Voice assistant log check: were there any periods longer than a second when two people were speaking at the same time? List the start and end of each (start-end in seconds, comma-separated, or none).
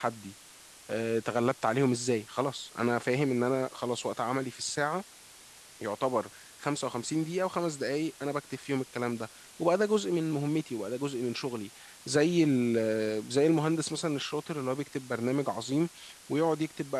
none